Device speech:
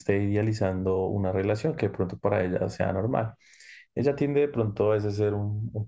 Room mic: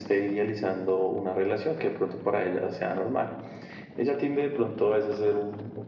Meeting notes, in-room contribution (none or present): none